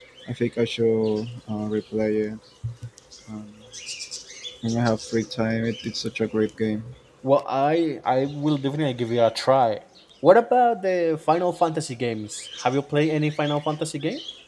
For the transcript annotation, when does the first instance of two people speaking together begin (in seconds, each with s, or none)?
none